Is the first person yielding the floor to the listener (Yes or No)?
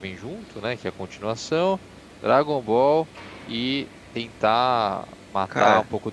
No